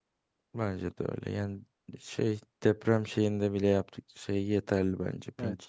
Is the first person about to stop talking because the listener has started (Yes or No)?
Yes